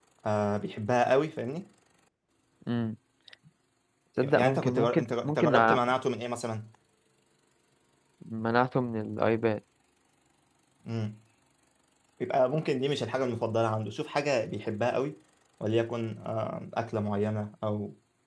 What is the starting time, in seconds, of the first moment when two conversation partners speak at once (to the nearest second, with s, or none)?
4 s